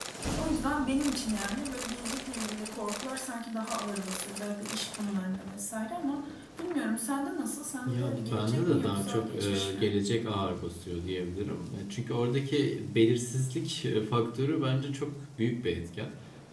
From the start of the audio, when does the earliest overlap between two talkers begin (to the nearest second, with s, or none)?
8 s